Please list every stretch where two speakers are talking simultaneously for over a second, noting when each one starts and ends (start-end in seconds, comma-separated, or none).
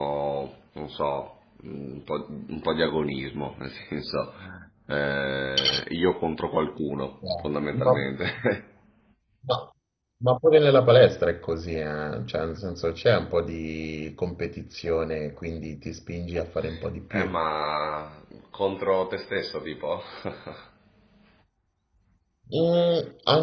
none